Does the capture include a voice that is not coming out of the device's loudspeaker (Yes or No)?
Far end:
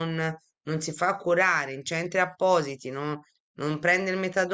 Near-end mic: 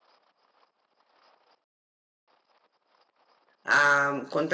Yes